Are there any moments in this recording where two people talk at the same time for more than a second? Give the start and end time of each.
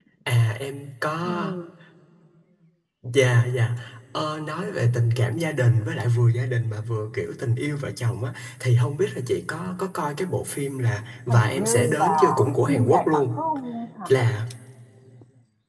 11.3-13.4

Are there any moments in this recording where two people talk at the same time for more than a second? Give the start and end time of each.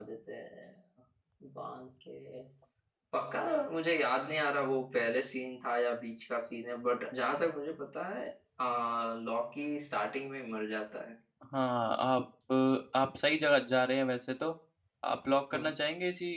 none

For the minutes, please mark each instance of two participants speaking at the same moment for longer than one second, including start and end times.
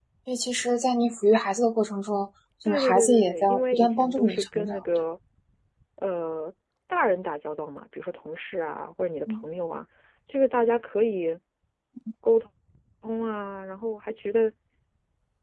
2.7-4.8

